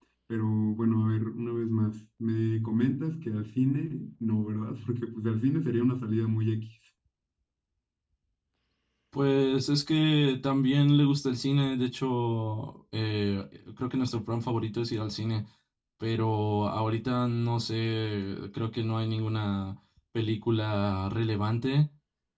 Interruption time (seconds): none

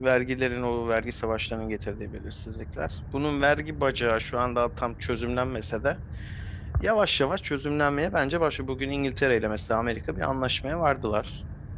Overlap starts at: none

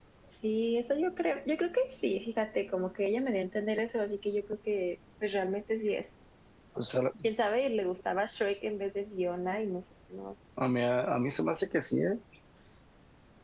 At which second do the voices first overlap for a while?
none

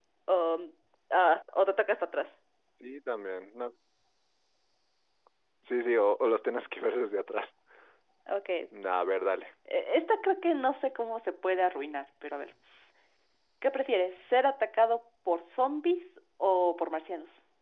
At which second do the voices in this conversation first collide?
none

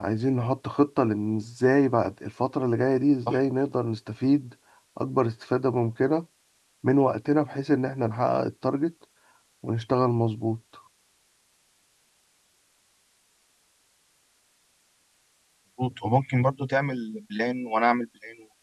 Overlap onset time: none

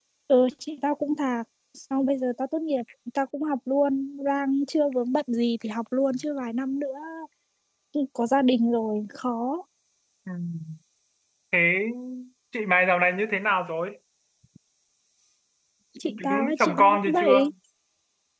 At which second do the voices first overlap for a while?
16.0 s

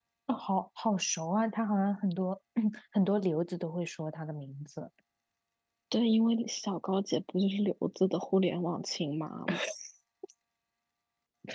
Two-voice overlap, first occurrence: none

